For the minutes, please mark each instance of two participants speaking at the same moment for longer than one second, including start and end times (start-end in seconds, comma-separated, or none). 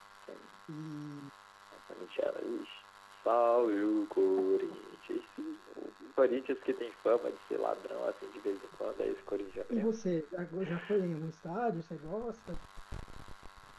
none